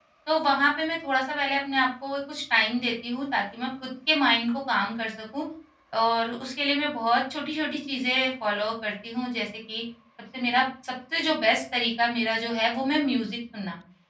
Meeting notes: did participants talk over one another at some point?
No

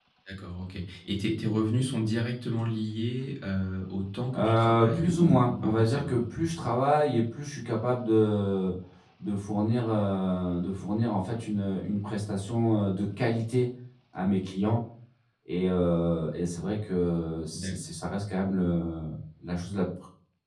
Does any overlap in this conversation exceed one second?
Yes, from 4.3 s

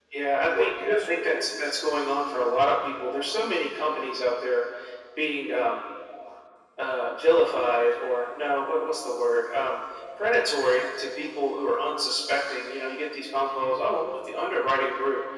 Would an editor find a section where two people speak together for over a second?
Yes, from 0.6 s

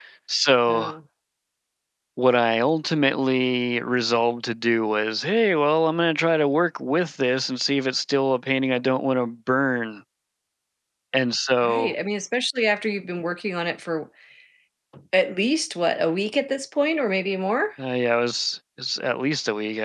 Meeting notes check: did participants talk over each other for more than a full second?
No

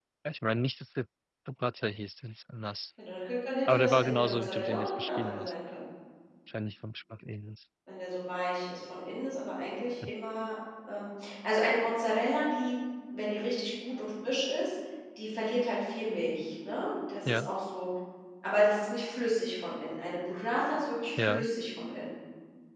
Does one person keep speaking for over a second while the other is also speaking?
Yes, from 3.6 s

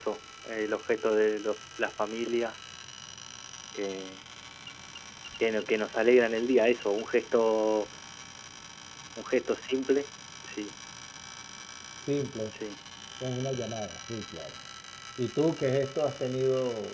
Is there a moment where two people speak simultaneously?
No

